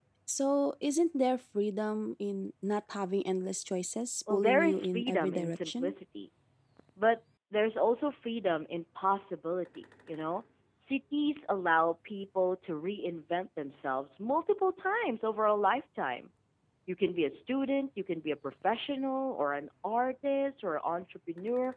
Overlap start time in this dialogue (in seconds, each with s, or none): 4.3 s